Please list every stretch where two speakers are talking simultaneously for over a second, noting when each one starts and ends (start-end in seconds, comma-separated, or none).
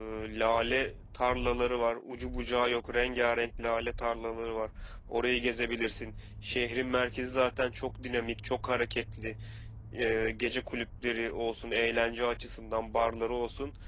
none